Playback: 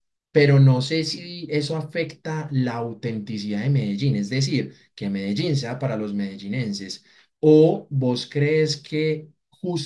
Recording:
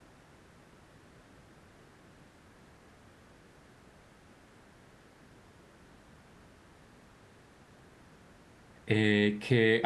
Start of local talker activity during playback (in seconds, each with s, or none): 8.8 s